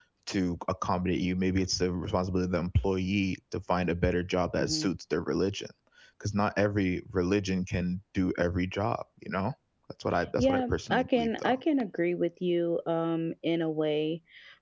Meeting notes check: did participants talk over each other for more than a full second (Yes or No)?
Yes